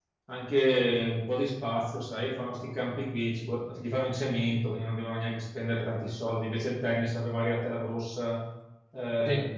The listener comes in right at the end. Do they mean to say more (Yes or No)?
No